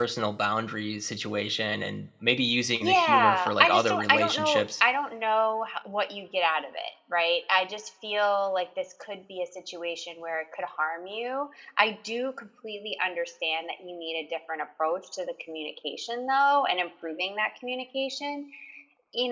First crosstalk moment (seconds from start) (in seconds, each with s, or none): 2.8 s